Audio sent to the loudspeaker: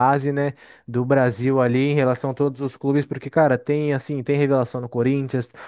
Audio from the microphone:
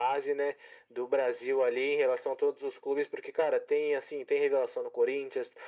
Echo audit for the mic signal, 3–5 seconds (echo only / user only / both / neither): echo only